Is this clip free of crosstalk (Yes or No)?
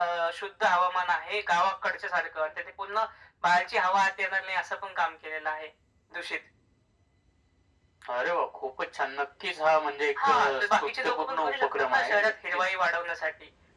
No